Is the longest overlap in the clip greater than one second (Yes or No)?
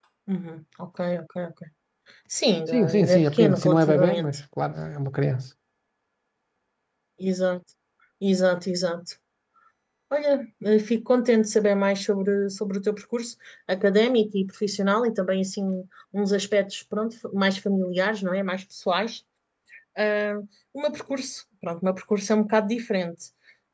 Yes